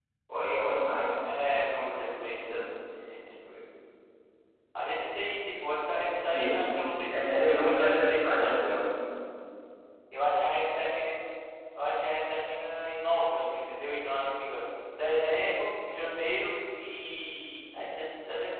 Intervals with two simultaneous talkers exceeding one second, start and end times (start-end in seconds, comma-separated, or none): 7.1-8.6